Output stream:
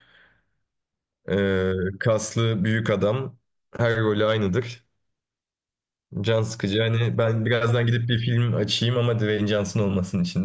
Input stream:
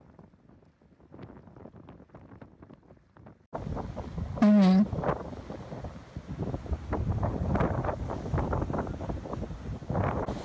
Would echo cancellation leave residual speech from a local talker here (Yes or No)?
Yes